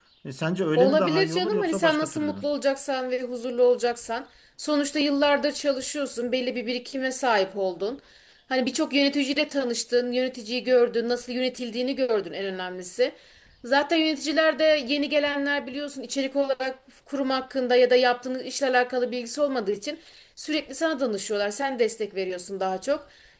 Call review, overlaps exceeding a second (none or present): present